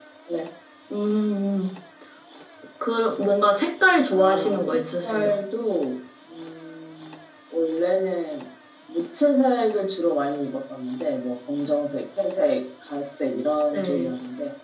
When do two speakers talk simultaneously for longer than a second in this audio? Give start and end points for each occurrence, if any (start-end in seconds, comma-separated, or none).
4.1-5.3